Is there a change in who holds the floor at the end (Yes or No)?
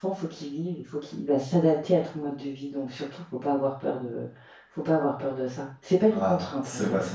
Yes